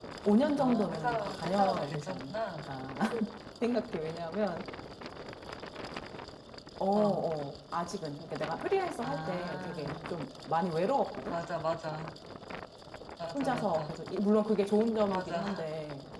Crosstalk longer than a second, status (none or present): present